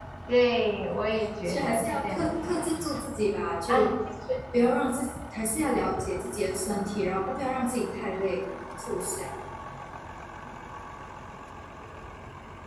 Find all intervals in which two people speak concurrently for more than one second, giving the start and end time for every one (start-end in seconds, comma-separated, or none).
1.4-2.7